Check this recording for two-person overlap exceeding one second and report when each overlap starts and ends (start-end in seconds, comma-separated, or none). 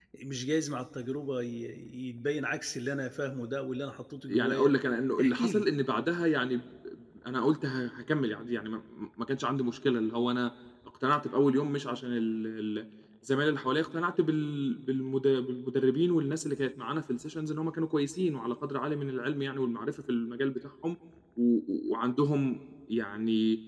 none